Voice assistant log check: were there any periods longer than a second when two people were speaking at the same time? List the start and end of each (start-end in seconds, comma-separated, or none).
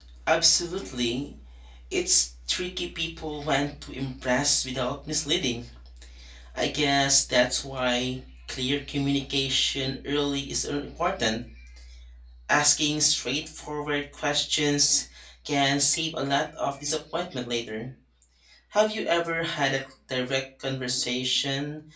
none